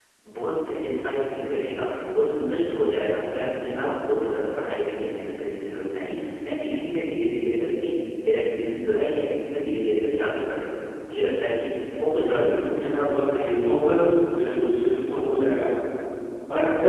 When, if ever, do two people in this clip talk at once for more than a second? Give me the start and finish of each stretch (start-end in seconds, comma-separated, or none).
12.2-13.4